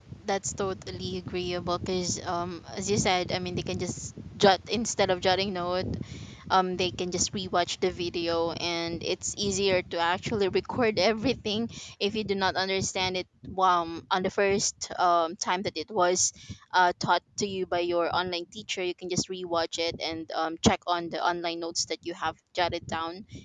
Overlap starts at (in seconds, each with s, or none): none